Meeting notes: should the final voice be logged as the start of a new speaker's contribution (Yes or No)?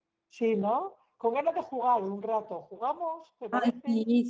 Yes